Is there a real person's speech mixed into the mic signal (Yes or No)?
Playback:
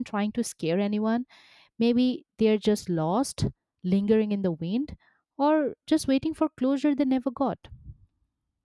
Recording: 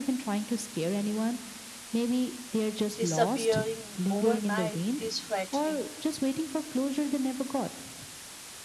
Yes